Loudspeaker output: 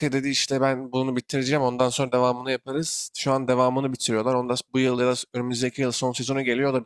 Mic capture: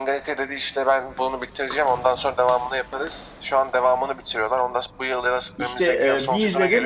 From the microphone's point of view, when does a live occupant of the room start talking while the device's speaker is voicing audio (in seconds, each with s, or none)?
5.6 s